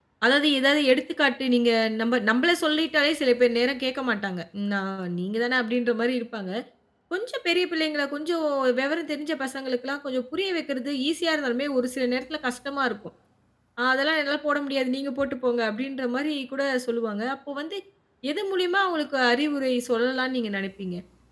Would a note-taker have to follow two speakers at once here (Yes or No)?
No